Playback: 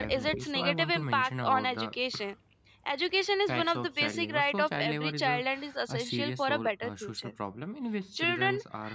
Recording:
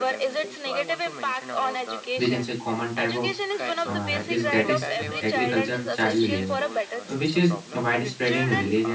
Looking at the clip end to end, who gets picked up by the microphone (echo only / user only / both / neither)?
both